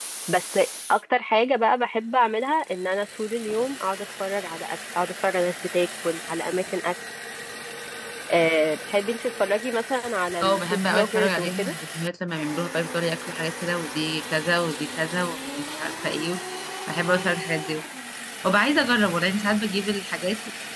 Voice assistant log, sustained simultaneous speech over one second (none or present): present